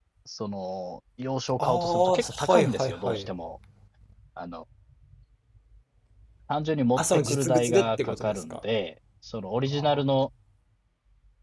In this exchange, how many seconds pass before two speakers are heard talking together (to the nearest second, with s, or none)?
2 s